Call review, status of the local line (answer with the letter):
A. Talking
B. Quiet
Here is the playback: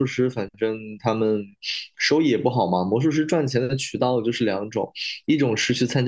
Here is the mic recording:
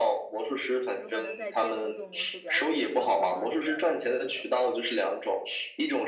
A